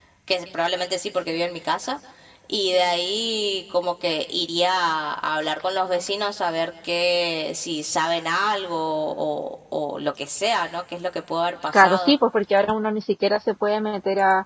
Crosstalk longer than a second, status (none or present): none